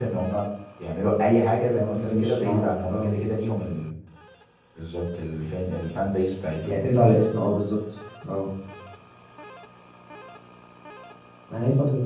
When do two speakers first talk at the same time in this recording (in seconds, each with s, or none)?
1.7 s